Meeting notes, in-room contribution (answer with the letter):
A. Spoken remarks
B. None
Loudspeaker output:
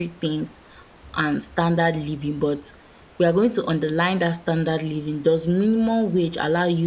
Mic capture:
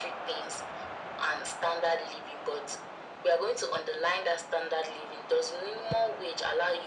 B